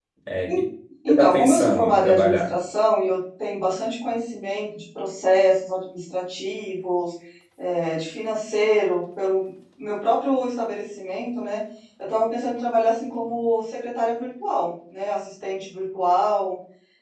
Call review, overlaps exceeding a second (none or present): present